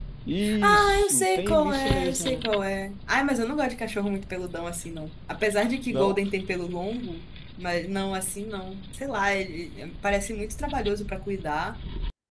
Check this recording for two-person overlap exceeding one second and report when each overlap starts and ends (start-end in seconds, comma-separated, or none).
0.6-2.4